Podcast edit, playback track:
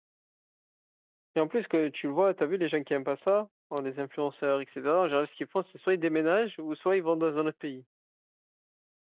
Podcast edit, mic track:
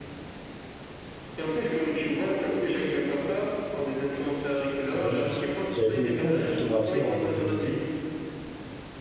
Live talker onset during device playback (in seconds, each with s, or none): 4.8 s